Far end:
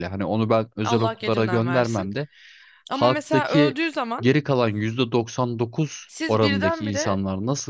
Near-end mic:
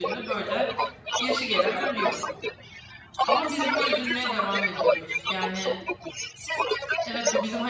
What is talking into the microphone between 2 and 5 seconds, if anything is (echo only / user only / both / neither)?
both